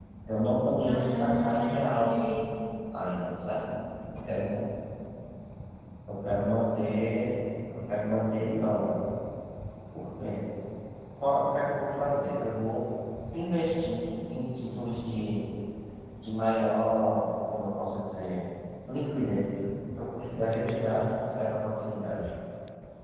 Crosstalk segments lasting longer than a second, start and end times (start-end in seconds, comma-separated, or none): 0.8-2.1